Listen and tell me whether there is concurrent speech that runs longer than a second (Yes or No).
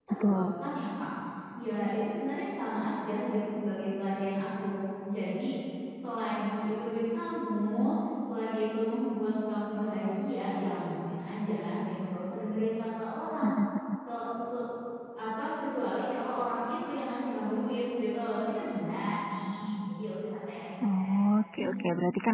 No